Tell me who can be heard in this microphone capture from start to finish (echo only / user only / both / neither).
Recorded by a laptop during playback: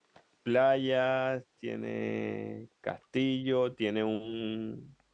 user only